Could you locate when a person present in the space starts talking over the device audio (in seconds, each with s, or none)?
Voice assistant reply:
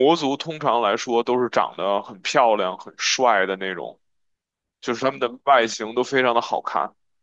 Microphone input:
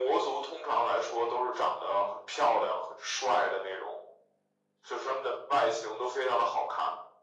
none